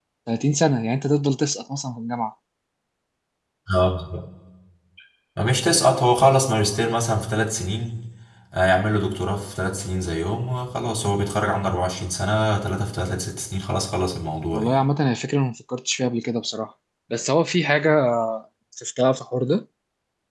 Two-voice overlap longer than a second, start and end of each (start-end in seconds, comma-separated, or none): none